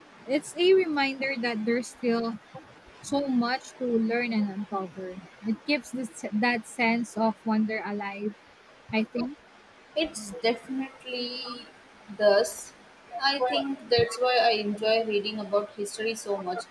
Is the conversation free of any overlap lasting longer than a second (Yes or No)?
Yes